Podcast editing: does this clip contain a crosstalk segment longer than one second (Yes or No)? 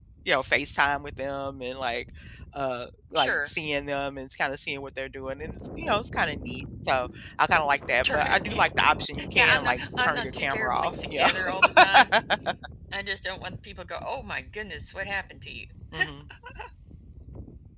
Yes